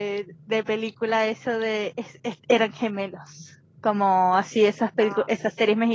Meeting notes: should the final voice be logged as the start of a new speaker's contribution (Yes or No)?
No